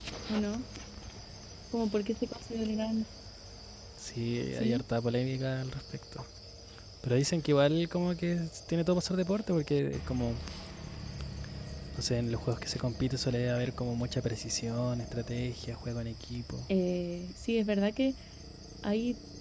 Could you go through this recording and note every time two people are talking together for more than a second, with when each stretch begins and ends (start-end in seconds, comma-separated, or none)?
none